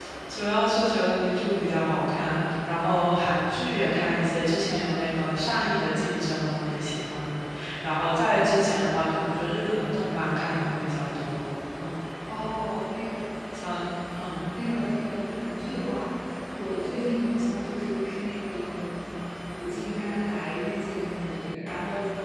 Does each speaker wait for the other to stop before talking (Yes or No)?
Yes